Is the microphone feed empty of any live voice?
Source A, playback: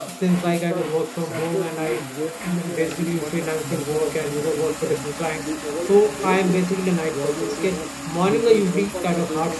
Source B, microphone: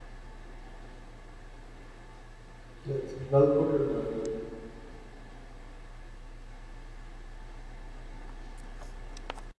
No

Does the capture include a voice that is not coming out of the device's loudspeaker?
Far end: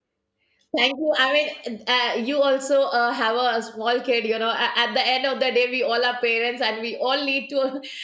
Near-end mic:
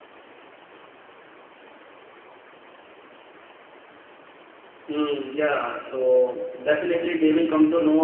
Yes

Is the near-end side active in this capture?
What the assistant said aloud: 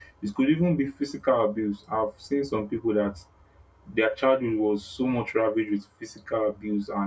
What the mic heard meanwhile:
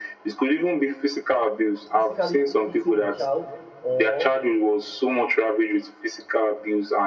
Yes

